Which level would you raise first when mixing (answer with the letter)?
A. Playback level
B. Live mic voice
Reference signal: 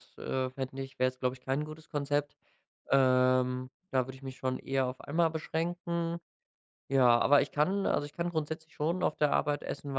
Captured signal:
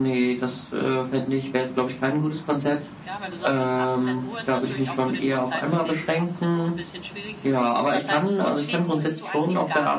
B